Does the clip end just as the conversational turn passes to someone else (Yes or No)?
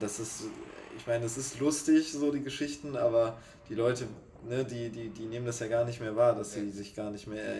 No